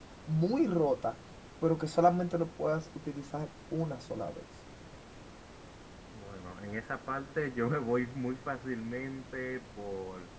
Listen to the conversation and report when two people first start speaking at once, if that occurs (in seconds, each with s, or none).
none